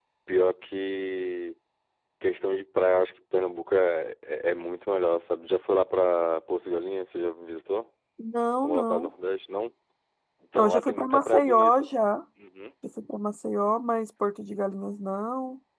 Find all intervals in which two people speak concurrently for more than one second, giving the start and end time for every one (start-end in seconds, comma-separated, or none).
10.6-11.9